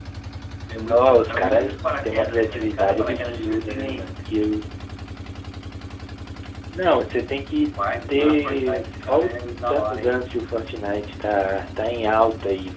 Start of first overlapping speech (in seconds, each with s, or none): 0.8 s